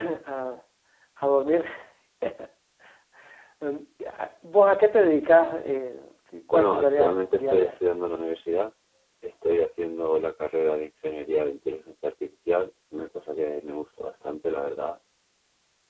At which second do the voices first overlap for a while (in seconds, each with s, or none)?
6.5 s